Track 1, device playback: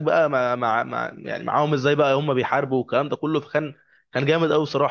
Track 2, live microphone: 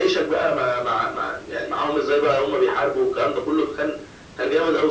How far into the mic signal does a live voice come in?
none

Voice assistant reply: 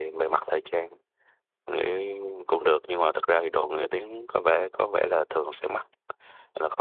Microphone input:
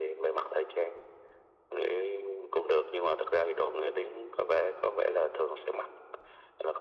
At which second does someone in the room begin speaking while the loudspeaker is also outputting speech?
none

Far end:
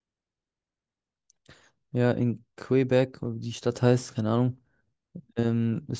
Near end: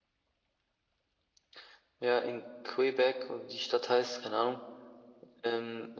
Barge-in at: none

